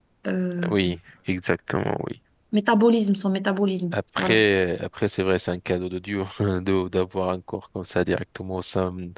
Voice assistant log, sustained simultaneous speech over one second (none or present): none